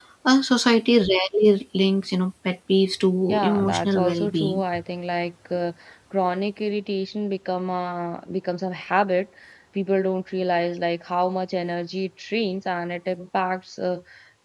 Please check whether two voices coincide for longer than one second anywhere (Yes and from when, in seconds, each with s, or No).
Yes, from 3.3 s